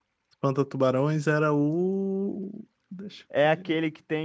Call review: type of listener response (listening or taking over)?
taking over